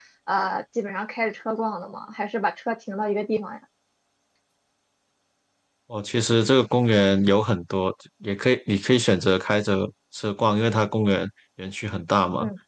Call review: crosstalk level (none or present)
none